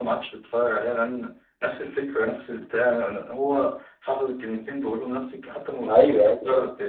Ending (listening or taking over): taking over